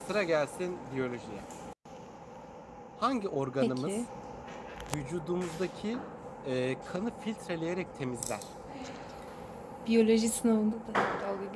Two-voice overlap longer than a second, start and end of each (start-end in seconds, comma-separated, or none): none